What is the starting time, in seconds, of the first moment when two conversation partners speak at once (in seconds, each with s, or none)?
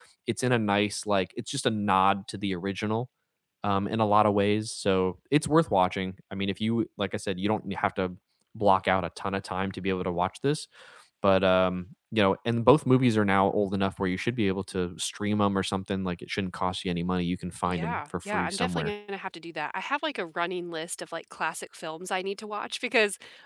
17.7 s